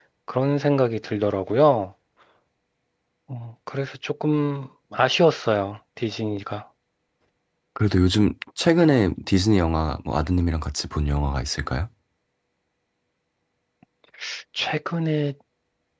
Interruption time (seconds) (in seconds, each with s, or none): none